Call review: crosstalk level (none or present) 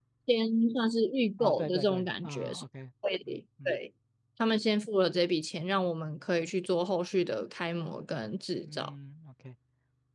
present